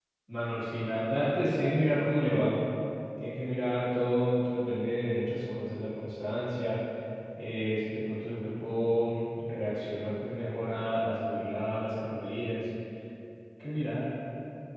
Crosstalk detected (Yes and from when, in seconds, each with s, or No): No